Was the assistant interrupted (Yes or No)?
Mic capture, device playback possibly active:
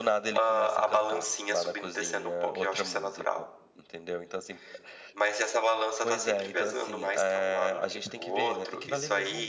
Yes